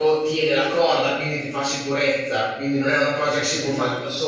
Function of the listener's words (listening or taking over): listening